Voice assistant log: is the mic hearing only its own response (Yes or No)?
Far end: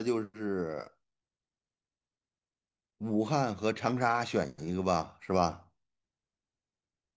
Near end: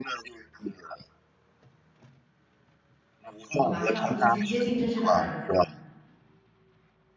No